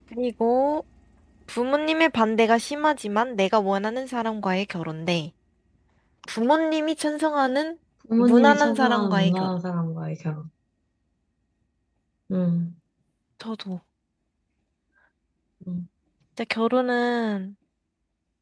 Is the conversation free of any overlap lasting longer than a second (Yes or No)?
No